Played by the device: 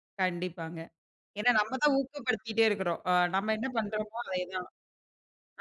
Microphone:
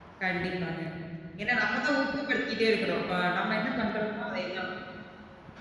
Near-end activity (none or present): none